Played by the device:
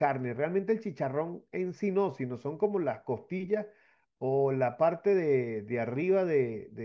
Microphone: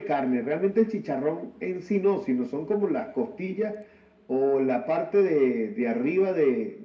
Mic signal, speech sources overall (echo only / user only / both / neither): echo only